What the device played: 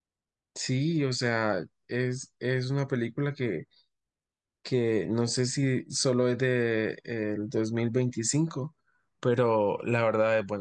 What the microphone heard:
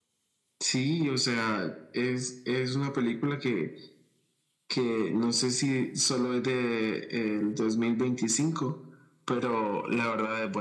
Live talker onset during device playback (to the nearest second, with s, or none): none